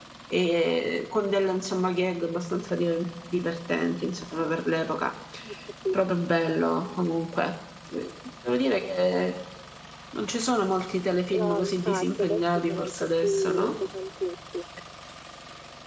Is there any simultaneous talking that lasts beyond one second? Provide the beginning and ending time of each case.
11.3-13.7

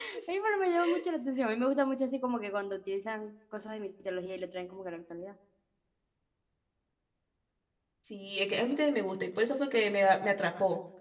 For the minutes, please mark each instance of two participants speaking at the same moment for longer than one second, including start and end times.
none

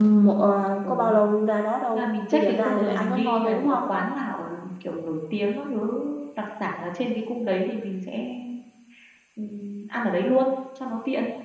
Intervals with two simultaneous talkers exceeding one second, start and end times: 1.9-3.8

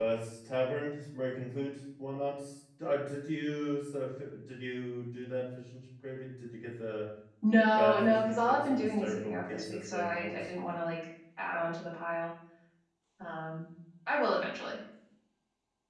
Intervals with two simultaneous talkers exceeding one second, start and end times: 7.8-10.3

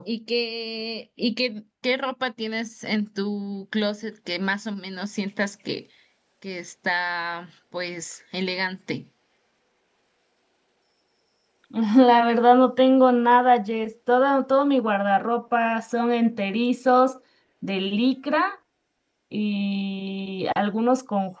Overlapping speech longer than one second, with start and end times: none

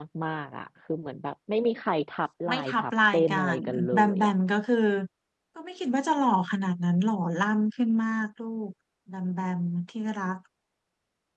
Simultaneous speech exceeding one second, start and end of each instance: 2.5-4.3

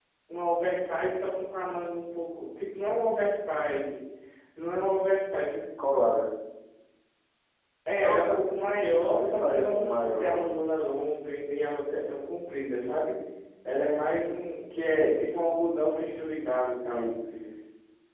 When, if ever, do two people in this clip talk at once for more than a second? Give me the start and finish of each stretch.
8.0-10.6

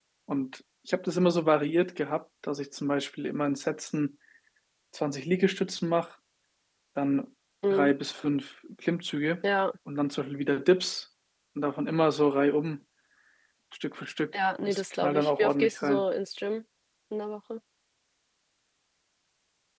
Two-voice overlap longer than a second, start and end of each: 14.6-16.0

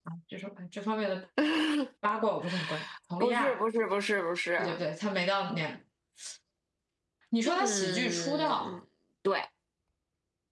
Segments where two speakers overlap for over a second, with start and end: 7.5-8.8

